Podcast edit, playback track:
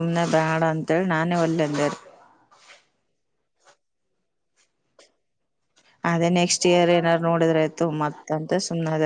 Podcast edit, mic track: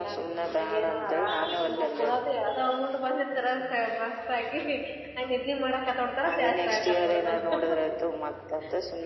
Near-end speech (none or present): present